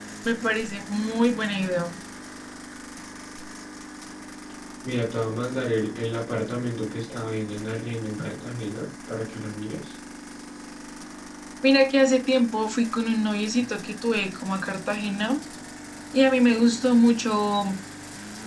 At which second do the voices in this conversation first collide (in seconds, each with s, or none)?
none